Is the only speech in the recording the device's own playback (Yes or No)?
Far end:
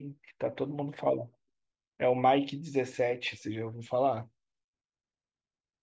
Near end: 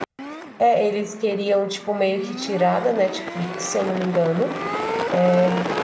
No